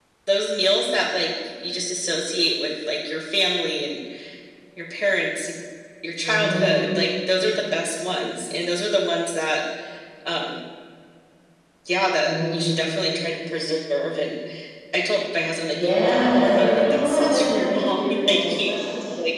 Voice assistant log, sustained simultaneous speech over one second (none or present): present